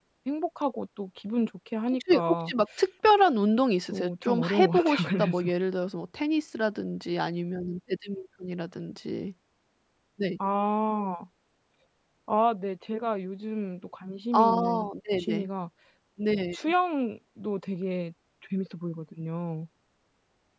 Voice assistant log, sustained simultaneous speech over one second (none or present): present